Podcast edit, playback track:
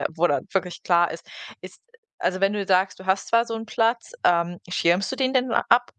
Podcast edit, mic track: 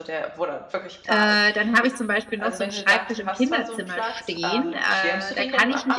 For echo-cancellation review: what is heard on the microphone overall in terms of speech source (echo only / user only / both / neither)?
both